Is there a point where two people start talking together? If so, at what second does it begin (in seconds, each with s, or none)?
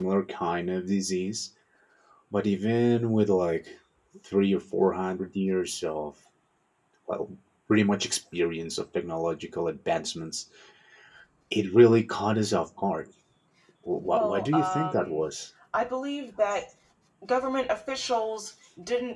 14.0 s